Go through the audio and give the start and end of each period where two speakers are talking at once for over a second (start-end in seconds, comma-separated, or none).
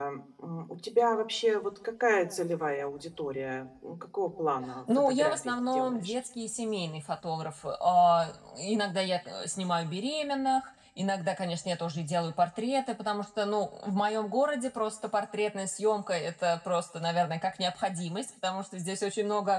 4.9-6.1